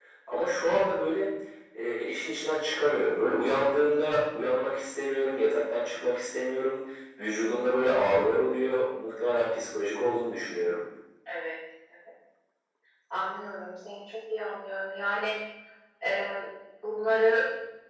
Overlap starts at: none

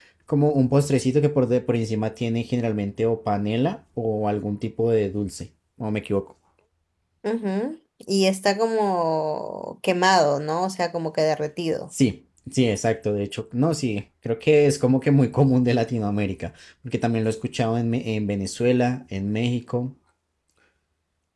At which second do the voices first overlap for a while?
none

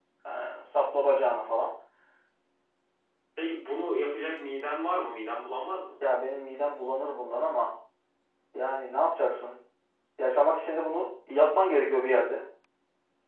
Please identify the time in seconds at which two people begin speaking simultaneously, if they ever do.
none

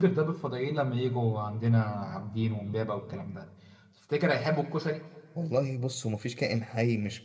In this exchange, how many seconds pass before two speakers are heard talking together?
none

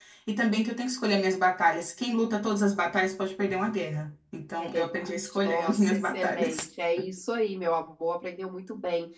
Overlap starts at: 5 s

